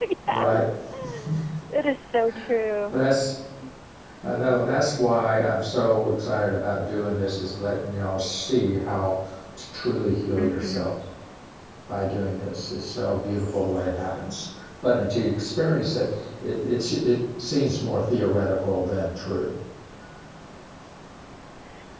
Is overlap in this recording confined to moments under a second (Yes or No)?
Yes